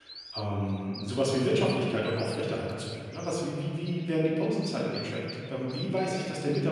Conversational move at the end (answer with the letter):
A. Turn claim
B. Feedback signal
B